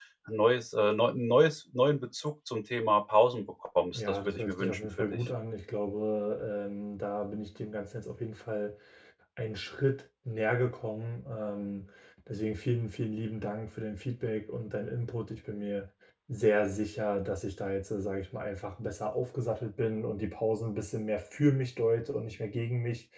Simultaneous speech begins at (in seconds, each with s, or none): 3.9 s